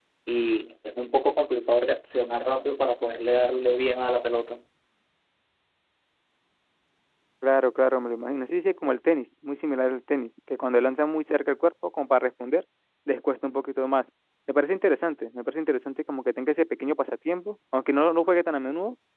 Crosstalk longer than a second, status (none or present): none